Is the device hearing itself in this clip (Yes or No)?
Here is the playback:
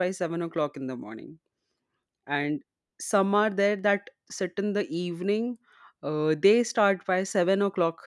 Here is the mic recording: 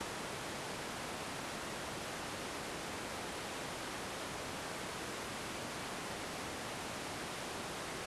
No